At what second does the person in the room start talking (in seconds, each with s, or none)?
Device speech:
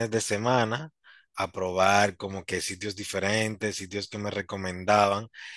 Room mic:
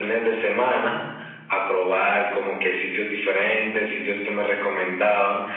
none